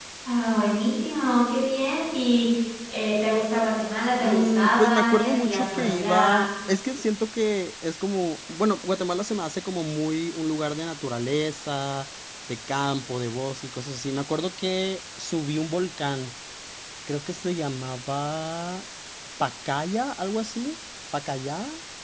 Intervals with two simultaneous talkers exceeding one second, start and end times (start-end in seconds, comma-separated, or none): 4.2-6.5